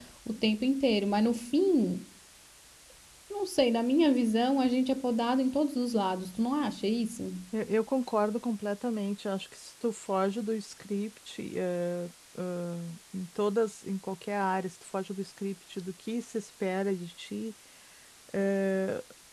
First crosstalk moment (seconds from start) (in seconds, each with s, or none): none